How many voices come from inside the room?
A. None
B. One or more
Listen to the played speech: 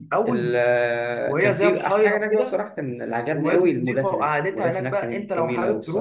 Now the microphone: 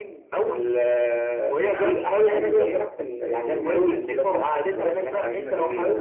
B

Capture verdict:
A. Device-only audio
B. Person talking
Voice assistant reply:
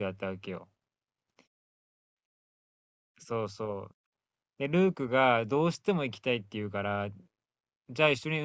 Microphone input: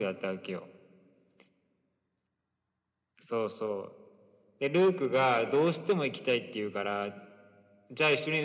A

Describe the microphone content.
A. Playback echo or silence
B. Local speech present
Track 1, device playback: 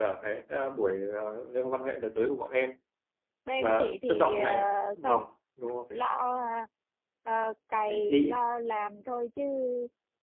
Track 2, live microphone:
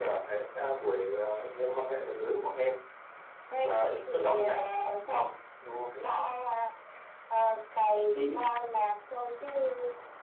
A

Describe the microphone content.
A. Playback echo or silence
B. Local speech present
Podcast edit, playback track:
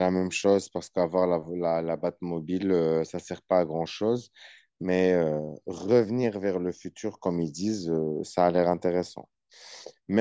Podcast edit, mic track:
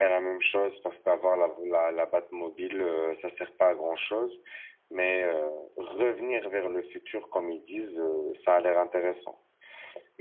A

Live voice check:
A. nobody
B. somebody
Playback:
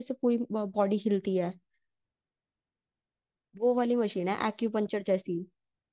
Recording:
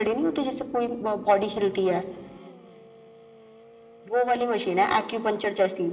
A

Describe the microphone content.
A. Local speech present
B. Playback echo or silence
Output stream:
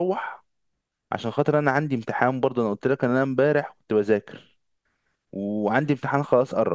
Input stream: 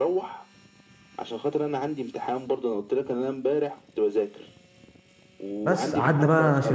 A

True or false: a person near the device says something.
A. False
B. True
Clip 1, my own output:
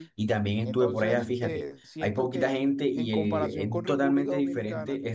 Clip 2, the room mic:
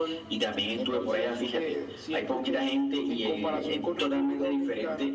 A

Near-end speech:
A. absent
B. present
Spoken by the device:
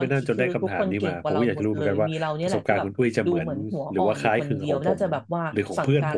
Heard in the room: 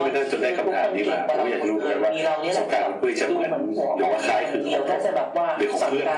A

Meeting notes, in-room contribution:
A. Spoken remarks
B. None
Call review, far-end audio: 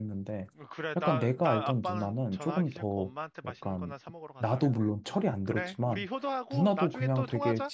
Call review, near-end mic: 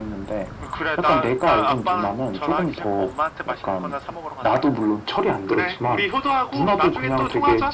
B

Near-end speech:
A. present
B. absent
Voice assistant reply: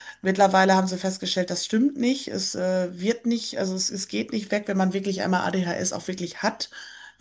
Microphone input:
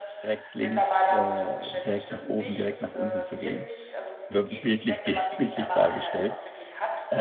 A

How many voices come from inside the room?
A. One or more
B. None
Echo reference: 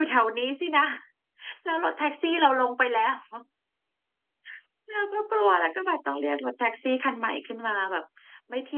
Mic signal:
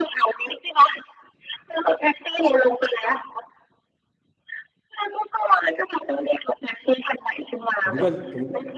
A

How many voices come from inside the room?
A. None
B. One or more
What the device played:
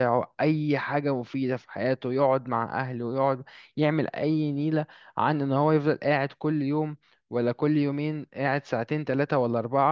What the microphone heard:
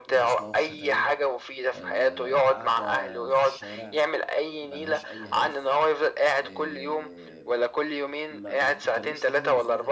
B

